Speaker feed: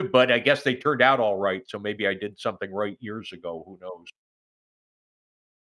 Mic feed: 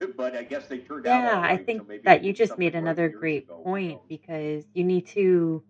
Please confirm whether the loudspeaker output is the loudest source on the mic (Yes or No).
No